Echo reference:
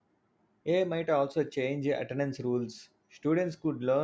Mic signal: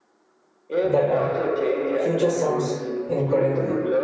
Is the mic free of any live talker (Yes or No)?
No